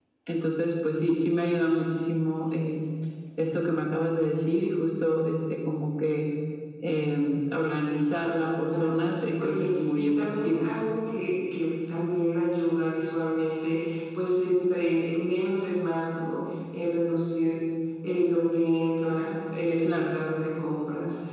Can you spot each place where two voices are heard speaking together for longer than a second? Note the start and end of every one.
8.7-10.7

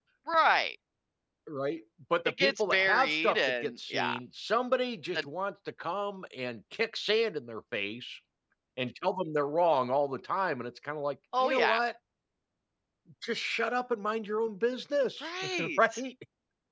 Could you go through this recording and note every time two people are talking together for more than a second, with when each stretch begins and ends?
2.4-4.1

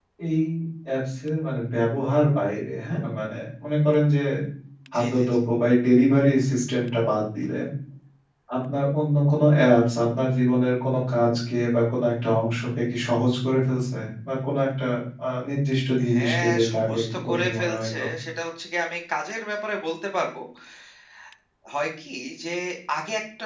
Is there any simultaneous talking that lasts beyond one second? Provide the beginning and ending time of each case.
16.1-18.0

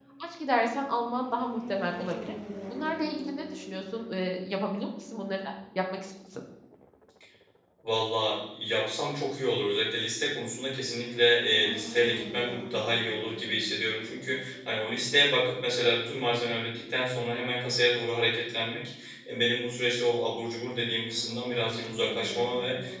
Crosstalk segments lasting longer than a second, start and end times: none

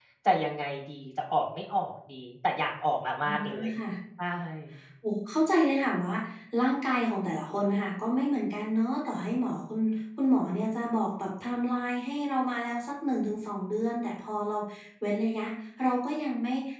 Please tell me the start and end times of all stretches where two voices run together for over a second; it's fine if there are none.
none

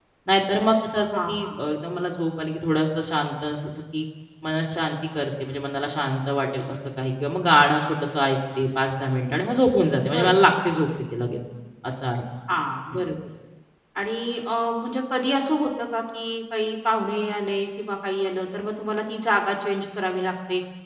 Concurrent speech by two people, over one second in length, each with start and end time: none

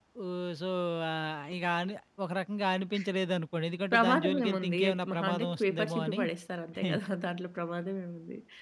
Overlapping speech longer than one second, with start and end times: 3.9-6.2

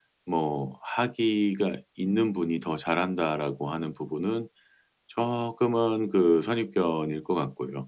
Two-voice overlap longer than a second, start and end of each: none

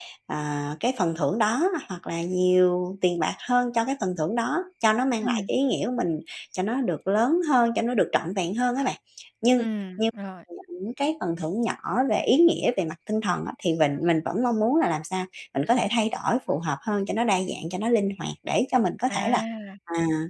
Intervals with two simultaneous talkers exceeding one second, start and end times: none

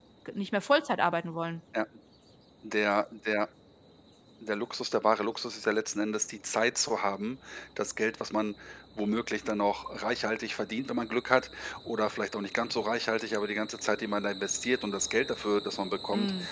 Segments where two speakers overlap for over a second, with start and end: none

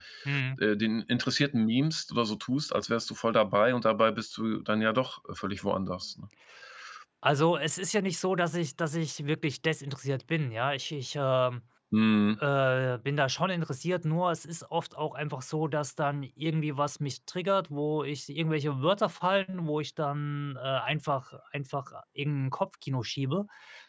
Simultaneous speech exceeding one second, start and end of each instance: none

